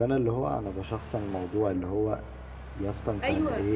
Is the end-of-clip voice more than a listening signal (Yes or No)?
No